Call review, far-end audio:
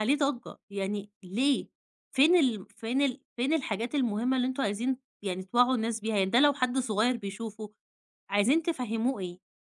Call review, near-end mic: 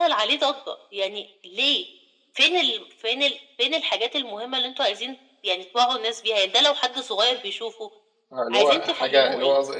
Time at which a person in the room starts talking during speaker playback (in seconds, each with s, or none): 8.3 s